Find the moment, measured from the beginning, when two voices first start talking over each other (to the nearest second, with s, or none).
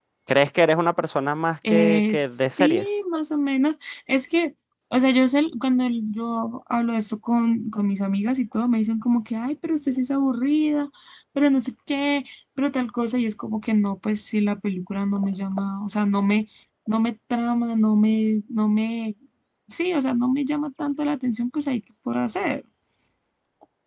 2 s